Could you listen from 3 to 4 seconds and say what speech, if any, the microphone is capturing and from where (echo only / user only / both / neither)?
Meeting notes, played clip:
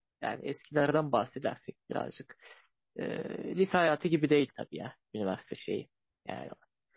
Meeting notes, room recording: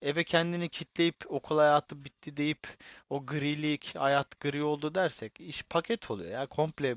user only